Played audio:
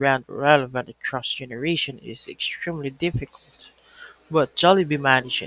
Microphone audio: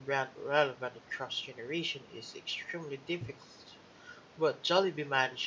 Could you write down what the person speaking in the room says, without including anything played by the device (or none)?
none